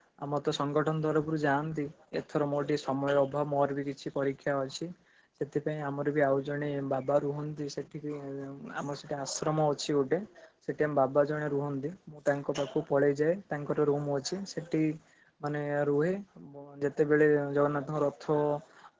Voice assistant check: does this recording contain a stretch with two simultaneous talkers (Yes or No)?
No